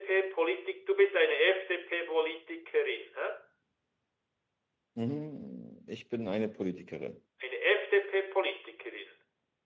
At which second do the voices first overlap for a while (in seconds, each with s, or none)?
none